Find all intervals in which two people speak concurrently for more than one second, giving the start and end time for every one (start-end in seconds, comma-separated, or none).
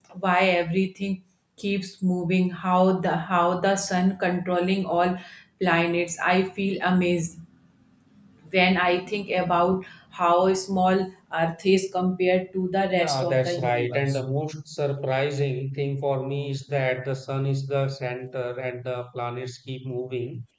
12.9-14.2